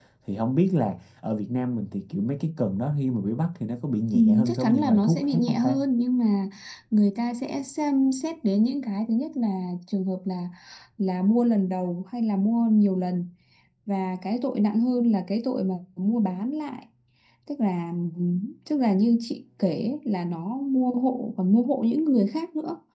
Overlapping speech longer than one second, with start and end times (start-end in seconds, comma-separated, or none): 4.1-5.8